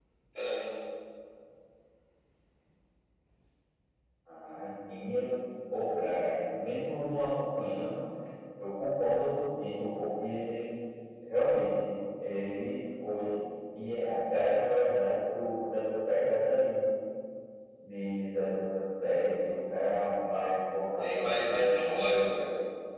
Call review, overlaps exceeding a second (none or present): present